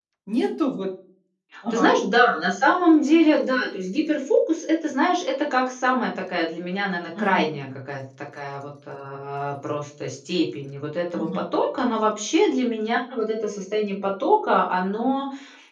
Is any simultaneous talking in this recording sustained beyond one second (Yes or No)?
No